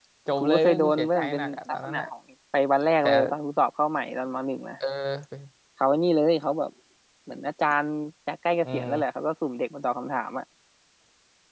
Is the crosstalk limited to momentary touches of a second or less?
No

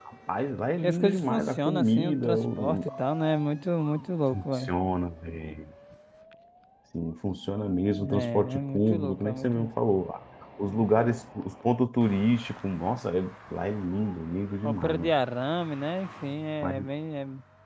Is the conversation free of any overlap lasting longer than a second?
No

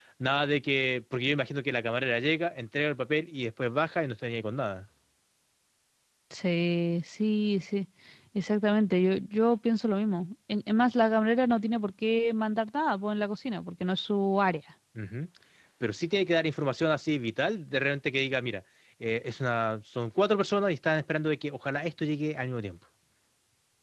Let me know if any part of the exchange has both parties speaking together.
No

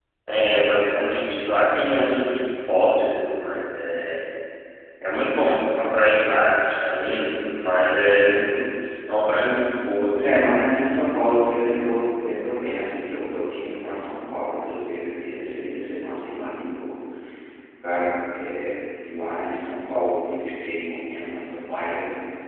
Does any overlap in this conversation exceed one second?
No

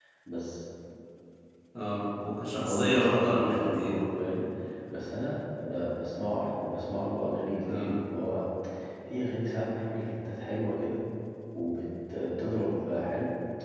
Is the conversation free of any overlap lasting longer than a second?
No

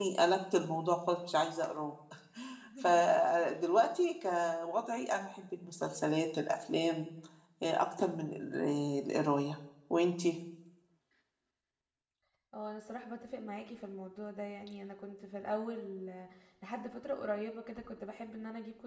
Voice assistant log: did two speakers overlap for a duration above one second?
No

